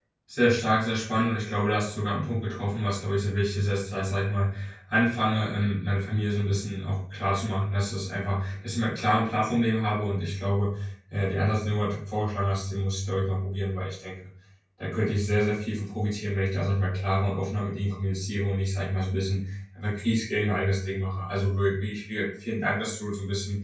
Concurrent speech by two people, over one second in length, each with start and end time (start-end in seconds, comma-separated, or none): none